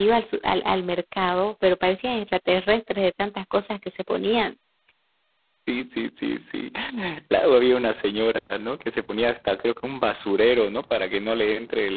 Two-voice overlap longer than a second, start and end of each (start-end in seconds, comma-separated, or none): none